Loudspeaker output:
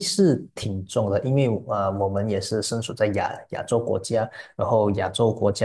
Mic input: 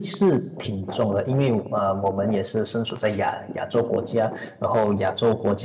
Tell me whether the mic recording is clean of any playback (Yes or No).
No